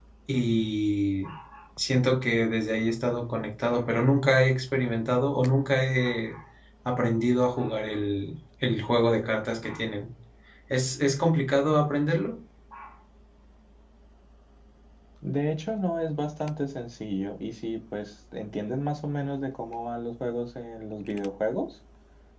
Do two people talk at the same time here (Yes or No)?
No